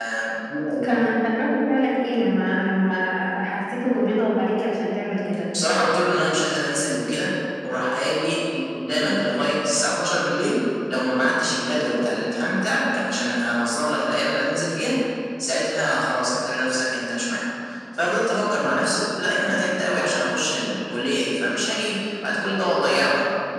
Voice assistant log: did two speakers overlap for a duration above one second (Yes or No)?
No